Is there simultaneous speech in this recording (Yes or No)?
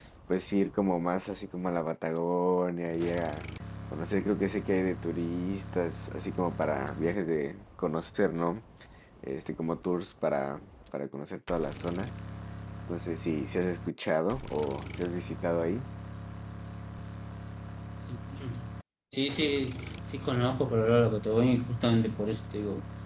No